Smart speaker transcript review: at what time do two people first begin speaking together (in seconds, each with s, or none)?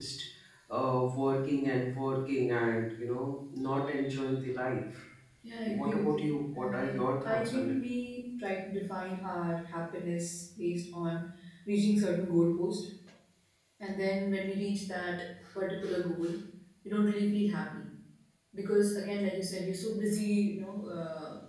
5.8 s